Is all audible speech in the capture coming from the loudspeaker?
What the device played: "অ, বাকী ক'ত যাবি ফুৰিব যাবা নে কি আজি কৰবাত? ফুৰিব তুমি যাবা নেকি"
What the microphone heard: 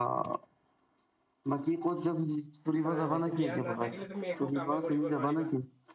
No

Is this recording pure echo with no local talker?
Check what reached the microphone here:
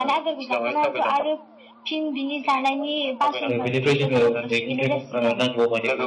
No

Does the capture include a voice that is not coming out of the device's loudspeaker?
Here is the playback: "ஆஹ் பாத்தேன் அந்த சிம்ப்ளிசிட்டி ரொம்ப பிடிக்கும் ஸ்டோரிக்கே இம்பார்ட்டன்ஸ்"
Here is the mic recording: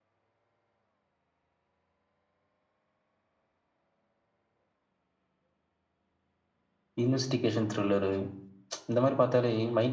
Yes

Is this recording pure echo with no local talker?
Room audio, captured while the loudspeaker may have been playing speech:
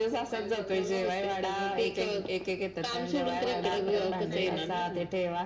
No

